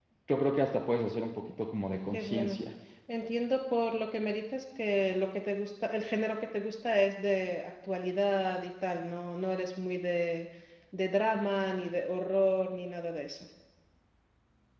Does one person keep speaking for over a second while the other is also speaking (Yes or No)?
No